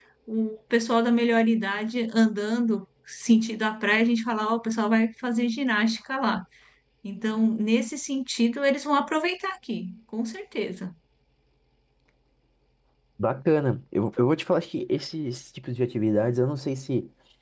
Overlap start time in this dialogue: none

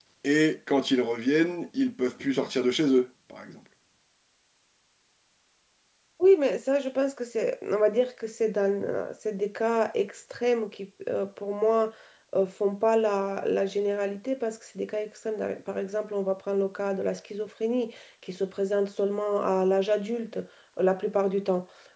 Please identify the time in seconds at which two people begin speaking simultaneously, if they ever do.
none

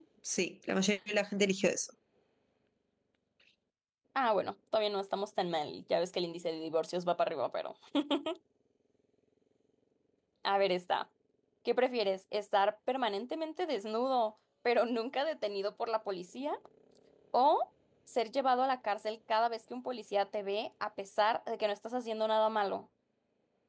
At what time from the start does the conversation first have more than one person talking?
none

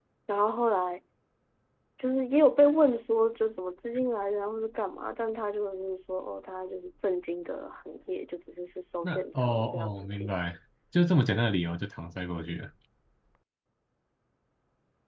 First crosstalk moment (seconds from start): 9.0 s

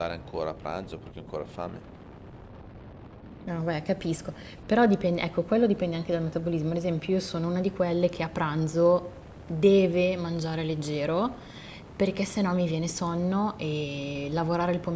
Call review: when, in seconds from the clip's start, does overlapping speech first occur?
none

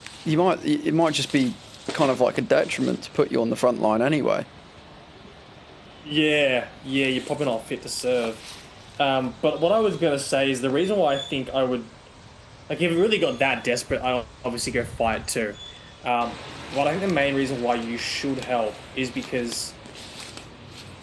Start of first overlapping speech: none

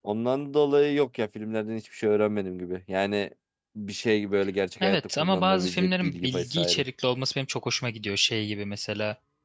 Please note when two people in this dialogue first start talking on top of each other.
4.8 s

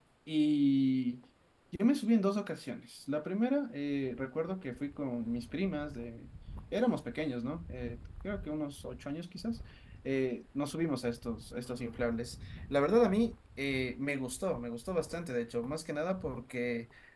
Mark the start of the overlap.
none

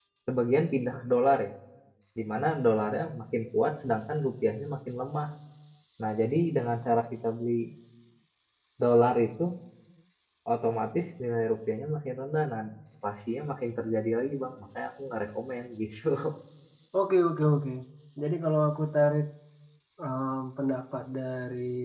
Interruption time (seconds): none

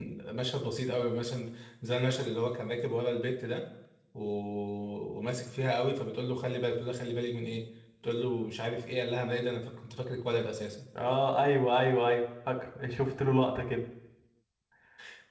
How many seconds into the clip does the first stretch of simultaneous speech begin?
none

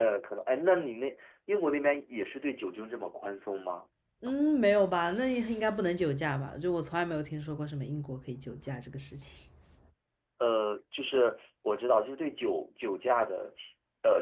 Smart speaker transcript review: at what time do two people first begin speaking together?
none

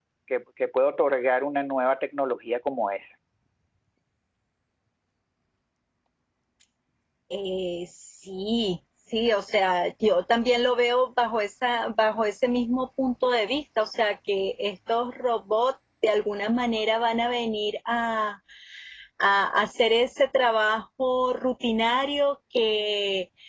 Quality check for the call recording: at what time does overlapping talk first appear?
none

